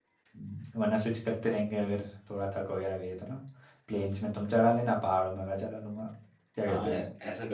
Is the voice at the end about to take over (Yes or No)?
Yes